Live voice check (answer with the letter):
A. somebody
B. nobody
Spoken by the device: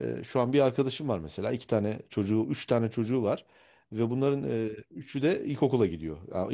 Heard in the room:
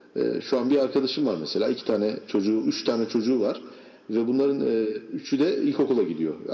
B